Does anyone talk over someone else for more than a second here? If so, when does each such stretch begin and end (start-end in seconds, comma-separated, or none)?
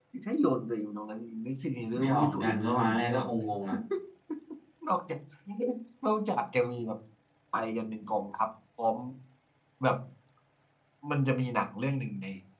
2.0-3.3